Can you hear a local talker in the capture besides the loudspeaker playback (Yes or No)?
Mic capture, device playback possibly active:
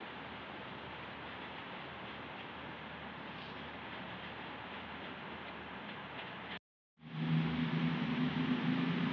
No